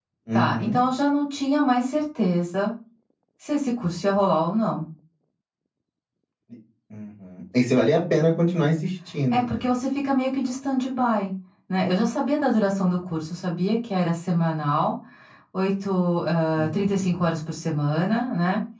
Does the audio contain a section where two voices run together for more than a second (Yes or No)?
No